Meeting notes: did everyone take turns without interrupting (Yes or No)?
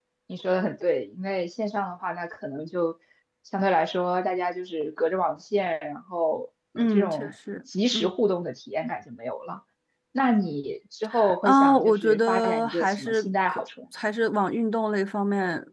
No